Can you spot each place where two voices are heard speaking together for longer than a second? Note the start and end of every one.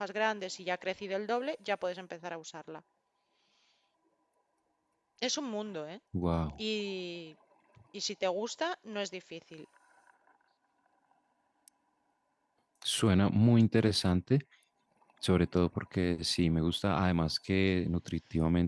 none

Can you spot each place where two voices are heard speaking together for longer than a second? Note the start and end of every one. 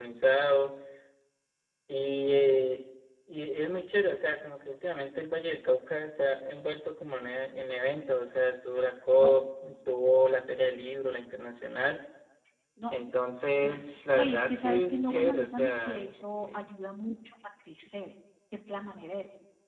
13.5-16.7

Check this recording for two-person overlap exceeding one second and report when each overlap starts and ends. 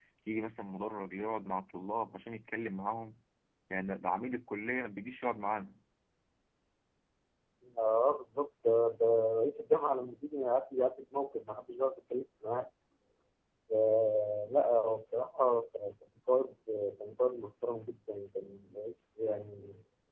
none

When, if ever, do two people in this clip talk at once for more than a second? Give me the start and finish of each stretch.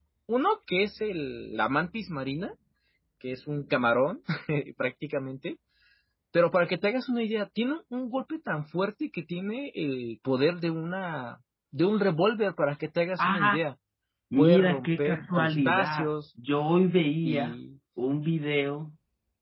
14.4-16.1

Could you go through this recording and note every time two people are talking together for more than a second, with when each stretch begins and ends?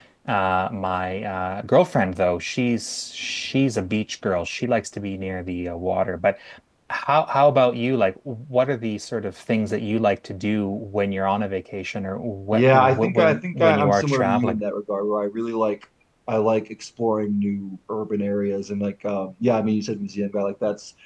12.5-14.6

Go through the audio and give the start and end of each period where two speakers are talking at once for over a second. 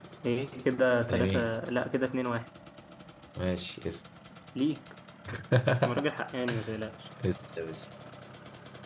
none

